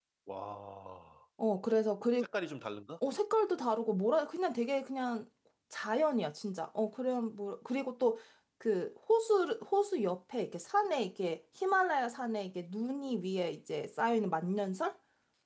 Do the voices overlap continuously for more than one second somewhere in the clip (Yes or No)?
No